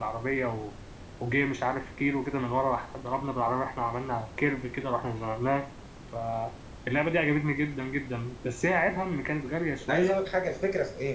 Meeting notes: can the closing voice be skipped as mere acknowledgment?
No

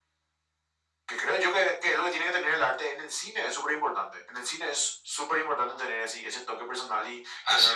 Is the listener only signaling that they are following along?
Yes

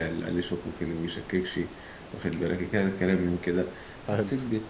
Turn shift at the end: No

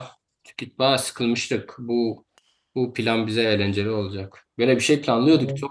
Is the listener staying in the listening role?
Yes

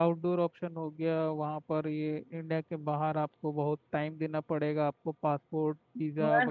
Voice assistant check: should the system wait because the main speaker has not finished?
No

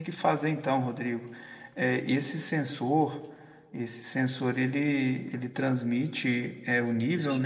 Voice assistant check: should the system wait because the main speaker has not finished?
Yes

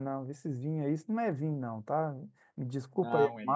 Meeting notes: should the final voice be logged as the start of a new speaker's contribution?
No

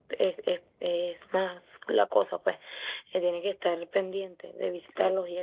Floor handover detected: No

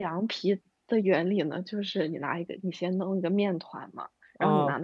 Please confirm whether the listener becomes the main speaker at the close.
No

